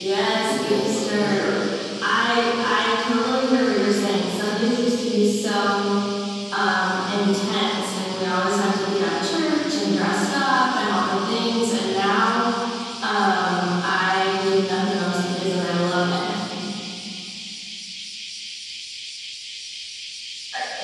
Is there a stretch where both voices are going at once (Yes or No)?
Yes